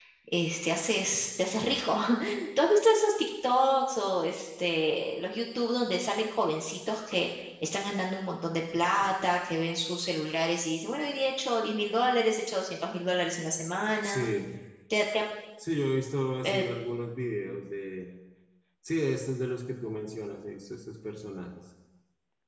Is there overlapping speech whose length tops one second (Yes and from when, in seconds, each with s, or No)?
No